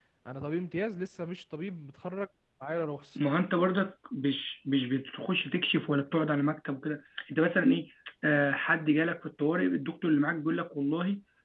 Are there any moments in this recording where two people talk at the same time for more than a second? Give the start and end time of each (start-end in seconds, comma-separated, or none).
none